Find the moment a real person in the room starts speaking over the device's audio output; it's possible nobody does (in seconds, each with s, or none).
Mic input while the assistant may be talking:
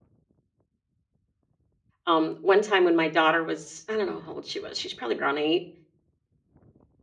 2.0 s